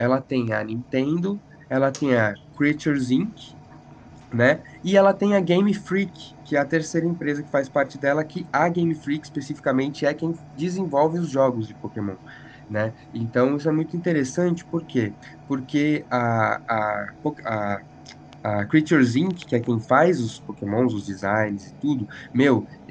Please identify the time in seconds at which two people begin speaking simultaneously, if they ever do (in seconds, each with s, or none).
none